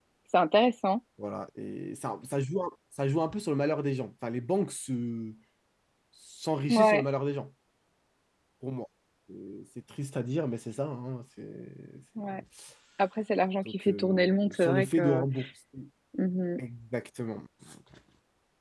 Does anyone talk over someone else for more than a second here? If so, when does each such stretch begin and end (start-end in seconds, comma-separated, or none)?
13.7-15.2